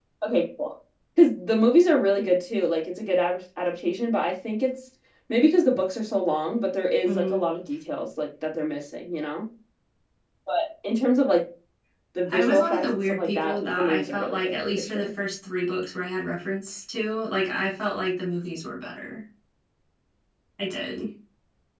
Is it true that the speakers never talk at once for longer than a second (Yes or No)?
No